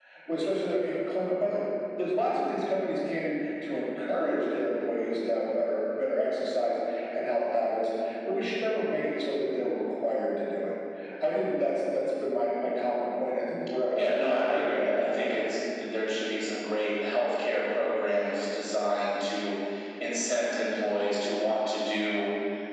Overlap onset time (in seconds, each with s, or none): 14.0 s